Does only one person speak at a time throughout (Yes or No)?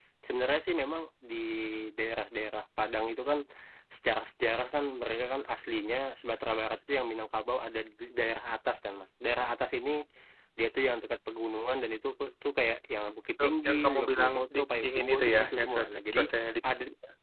No